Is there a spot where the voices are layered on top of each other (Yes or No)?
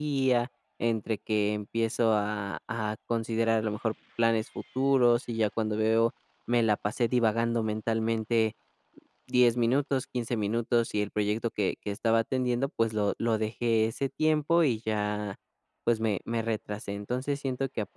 No